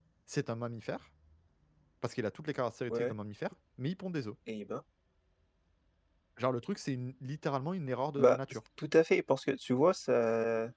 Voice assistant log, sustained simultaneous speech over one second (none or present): none